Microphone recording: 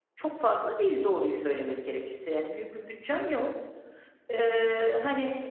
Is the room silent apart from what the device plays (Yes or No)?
No